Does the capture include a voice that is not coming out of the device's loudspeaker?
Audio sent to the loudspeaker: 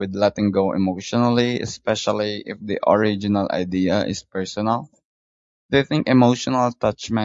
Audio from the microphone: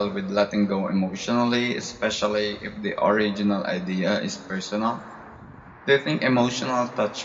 No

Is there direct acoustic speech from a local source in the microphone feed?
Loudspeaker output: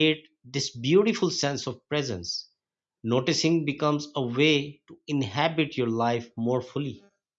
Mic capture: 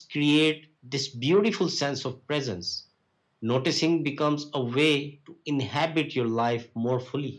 No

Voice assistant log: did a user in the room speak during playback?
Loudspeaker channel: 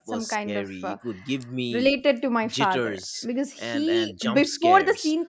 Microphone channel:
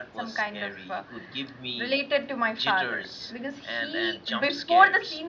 No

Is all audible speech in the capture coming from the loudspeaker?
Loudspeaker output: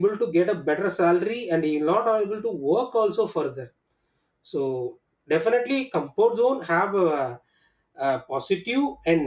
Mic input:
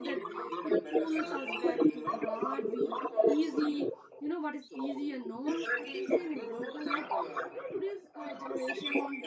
No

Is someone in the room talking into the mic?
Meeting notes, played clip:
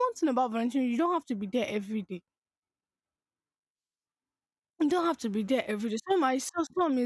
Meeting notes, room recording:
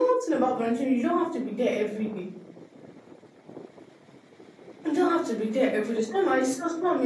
No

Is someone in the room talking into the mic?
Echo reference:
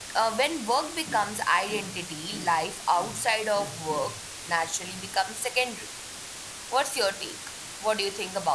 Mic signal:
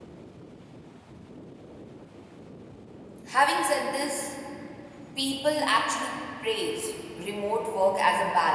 Yes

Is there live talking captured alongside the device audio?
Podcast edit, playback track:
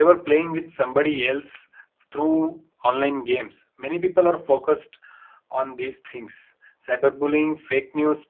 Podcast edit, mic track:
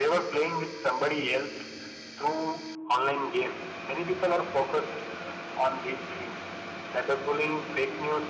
No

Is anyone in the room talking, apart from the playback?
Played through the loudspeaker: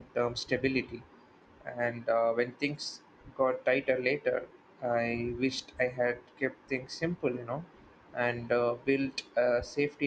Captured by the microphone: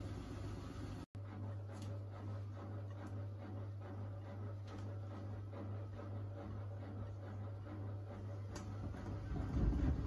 No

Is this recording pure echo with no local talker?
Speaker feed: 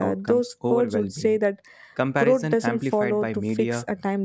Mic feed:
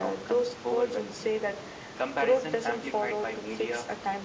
Yes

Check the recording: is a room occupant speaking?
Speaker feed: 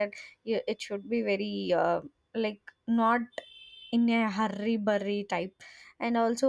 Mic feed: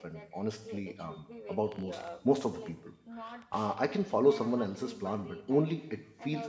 Yes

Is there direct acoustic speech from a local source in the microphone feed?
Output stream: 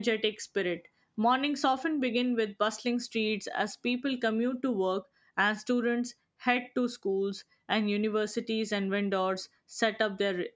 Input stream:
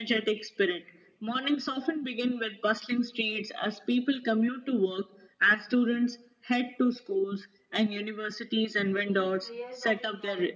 Yes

